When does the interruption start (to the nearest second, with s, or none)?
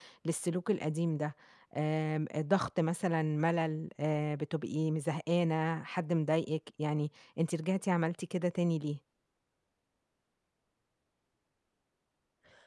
none